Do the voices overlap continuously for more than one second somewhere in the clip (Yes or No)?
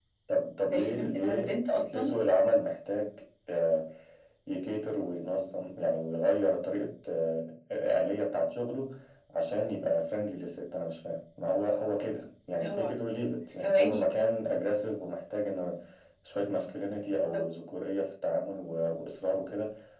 Yes